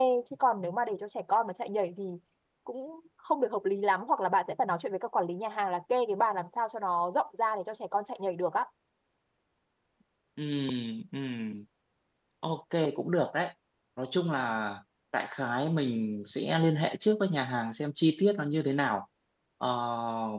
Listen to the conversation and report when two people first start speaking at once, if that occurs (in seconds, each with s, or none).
none